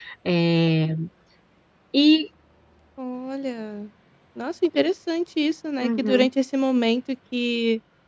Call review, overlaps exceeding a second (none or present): none